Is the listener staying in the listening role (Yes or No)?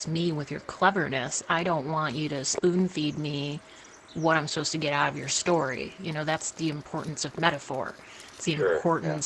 Yes